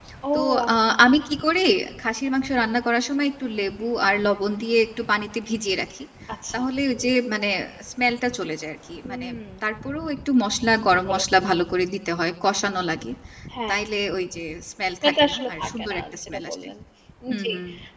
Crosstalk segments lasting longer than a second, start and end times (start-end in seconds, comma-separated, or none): 15.0-16.6